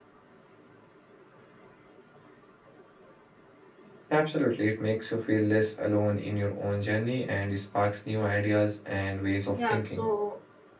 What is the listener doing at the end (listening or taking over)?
taking over